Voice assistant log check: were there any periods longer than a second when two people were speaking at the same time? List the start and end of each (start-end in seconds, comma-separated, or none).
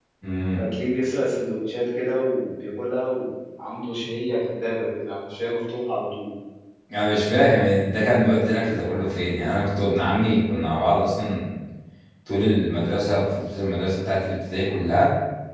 none